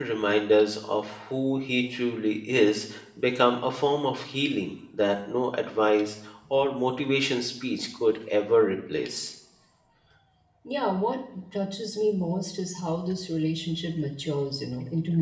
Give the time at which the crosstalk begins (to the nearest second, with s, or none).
none